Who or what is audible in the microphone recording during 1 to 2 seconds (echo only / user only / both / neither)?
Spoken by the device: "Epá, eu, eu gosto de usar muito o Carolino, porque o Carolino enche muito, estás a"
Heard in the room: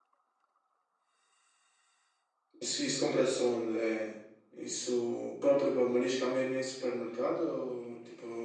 neither